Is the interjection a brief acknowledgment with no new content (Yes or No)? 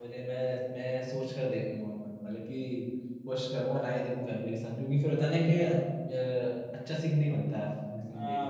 No